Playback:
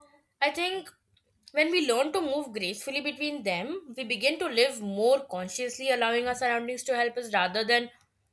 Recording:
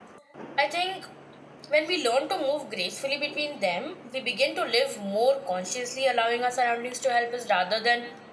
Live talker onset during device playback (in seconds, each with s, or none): none